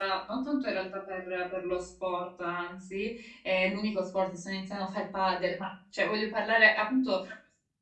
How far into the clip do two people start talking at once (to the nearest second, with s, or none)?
none